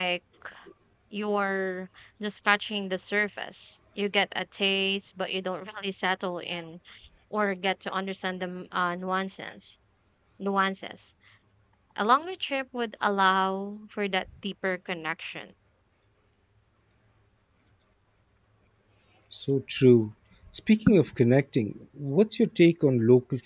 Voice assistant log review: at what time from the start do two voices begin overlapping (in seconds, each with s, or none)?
none